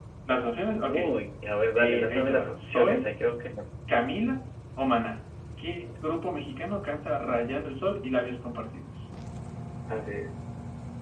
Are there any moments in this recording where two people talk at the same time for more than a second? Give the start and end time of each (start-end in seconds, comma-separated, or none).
1.8-3.1